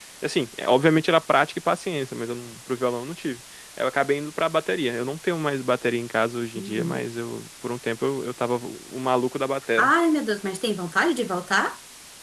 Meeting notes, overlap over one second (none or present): none